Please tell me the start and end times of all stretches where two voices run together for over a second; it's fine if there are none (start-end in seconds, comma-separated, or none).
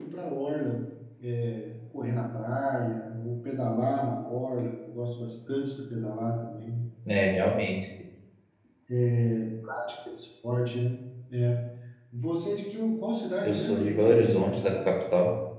13.4-14.9